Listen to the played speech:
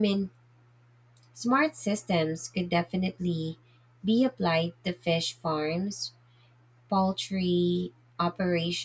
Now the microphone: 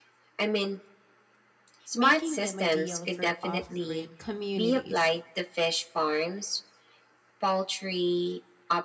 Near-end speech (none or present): present